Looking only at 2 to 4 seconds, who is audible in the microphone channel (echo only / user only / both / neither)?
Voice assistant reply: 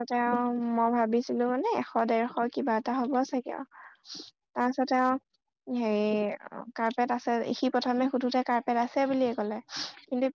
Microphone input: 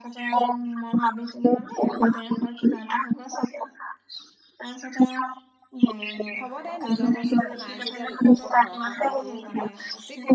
echo only